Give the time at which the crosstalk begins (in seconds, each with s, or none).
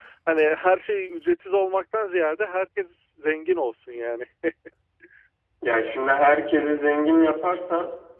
none